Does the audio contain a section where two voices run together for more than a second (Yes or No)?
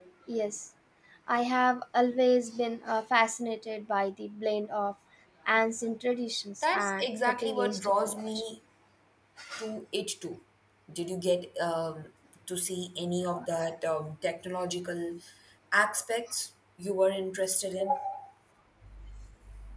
Yes